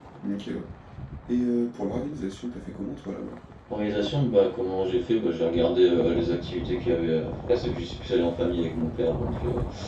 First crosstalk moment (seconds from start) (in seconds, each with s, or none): none